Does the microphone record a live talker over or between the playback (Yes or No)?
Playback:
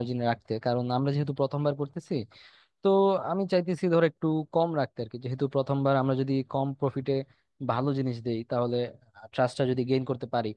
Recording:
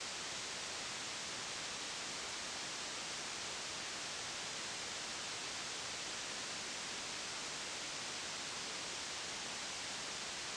No